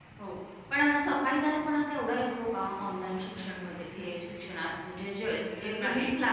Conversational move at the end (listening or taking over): listening